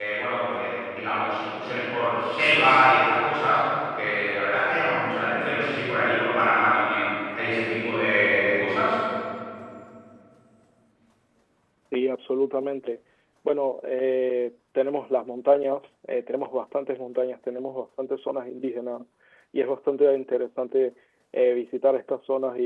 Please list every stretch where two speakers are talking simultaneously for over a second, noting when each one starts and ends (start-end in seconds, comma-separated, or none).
none